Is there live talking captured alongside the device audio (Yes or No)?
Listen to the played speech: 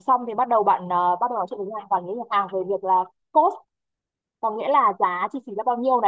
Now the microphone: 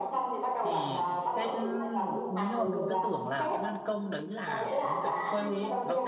Yes